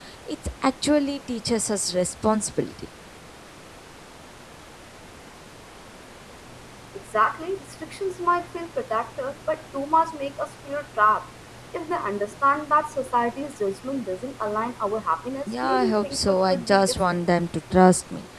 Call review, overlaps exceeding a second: present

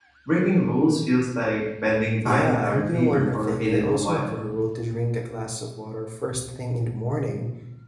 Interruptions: present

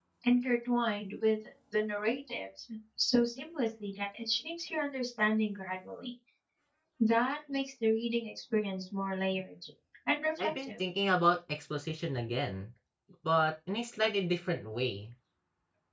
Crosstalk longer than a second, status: none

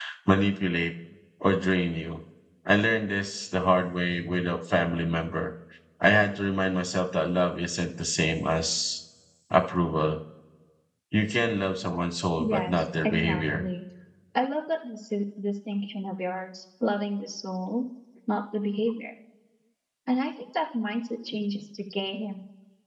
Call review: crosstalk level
present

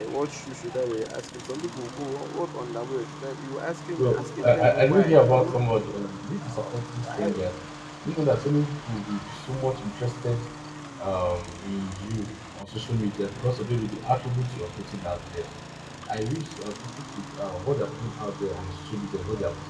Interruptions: present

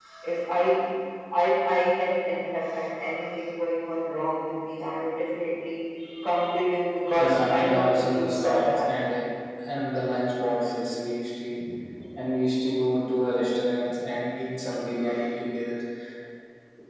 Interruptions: present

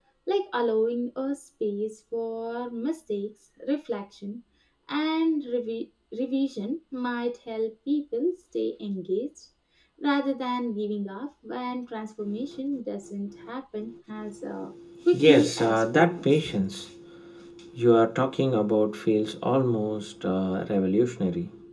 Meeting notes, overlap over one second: present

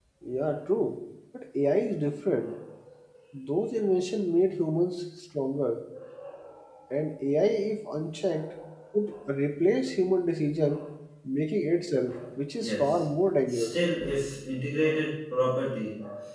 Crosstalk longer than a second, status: none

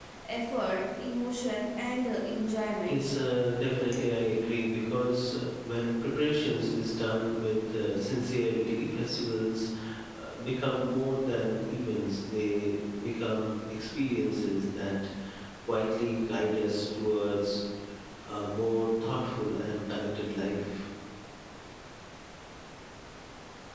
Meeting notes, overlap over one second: none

